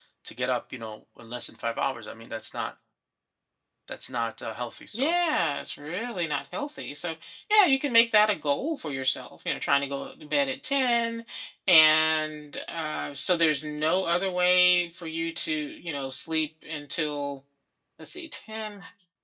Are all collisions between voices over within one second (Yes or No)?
Yes